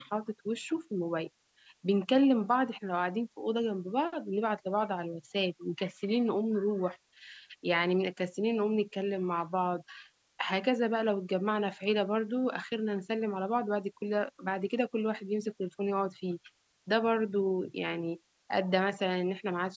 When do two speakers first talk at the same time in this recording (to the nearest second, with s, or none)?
none